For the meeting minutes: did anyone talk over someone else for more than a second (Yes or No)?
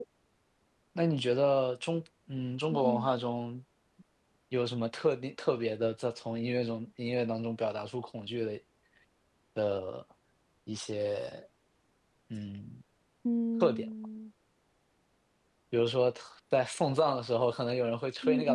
No